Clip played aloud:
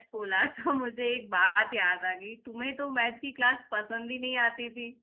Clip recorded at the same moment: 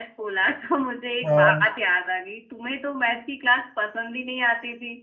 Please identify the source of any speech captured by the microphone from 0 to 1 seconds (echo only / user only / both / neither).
echo only